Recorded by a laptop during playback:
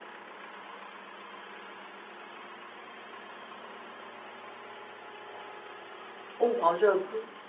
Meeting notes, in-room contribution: present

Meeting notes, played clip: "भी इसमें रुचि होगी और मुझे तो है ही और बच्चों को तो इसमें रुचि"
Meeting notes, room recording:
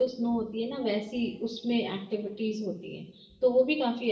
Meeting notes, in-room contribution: present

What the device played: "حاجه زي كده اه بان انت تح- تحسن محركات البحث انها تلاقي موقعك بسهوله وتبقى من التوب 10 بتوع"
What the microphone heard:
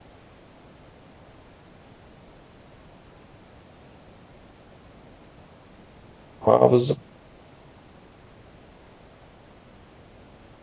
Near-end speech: present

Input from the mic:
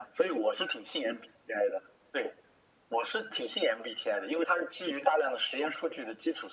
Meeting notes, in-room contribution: none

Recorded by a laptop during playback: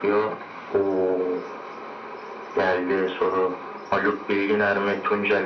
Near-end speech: none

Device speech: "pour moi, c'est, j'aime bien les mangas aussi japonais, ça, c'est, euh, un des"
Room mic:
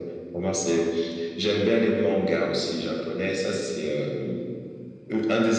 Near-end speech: none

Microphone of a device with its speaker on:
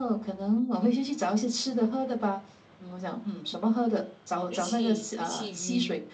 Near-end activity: present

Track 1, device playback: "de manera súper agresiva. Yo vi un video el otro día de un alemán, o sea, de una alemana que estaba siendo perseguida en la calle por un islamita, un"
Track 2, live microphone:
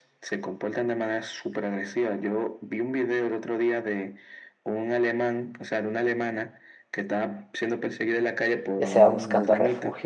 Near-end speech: present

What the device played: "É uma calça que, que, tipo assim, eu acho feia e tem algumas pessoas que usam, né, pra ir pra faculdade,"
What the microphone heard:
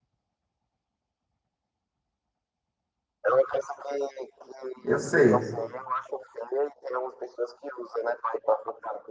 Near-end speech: present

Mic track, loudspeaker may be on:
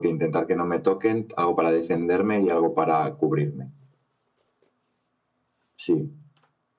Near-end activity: none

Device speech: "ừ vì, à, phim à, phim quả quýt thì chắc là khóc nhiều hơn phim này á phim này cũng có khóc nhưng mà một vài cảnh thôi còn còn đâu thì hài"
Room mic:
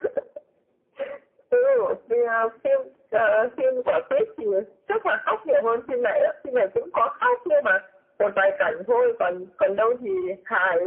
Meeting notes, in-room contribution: none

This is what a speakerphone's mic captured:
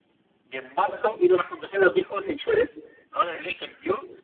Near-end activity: none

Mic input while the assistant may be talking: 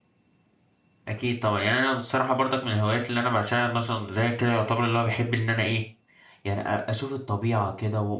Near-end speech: present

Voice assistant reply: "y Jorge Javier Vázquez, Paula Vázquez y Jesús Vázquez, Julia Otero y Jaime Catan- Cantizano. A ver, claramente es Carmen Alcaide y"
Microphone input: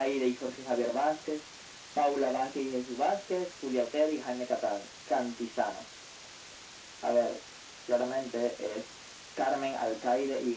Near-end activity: none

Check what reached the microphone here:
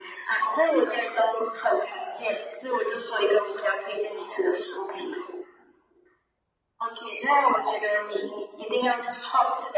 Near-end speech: none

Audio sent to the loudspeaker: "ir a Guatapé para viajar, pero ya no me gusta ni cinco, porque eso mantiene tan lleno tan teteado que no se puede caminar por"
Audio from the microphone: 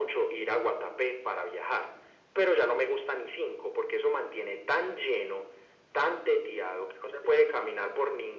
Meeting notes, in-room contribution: none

